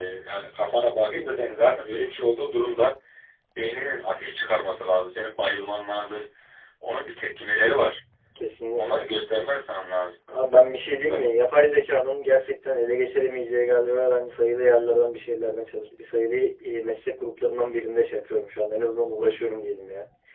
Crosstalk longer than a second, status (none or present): none